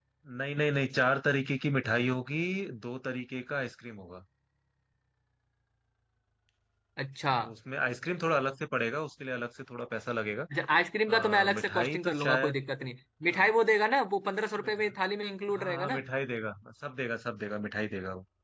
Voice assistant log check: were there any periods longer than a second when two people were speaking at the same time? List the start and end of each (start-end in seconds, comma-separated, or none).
11.1-12.6